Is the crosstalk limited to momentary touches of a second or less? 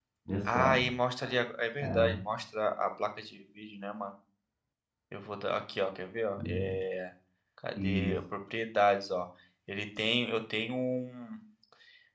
Yes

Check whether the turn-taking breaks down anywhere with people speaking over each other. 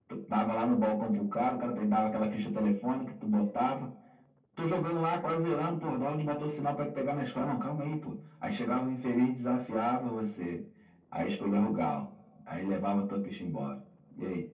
No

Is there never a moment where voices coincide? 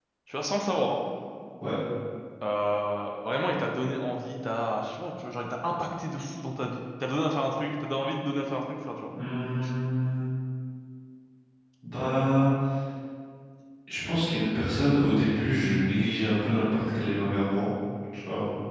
Yes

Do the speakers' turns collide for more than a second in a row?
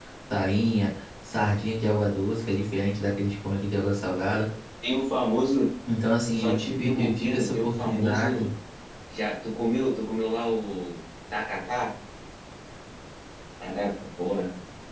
Yes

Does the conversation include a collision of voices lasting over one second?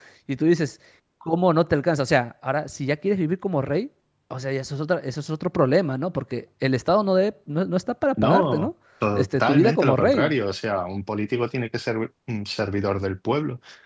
Yes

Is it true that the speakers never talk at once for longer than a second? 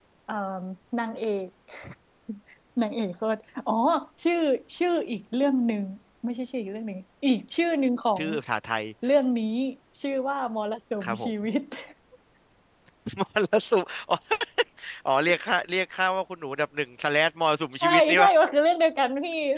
Yes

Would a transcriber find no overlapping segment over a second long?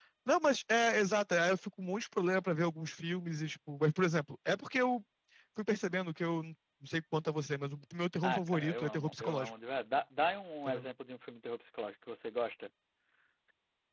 No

